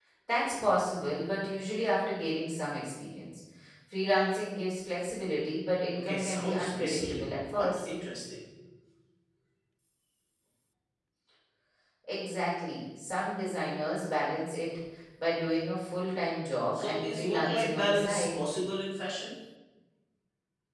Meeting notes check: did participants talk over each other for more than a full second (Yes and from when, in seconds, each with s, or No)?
Yes, from 6.0 s